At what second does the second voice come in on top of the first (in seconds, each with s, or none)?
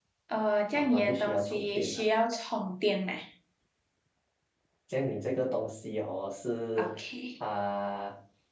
0.8 s